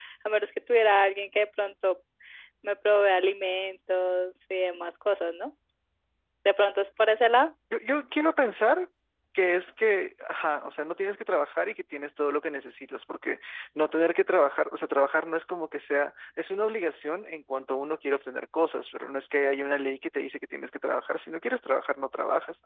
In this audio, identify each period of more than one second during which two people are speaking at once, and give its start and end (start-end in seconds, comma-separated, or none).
none